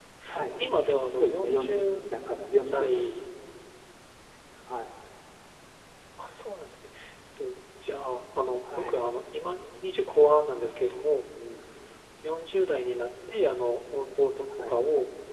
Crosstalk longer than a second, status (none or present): present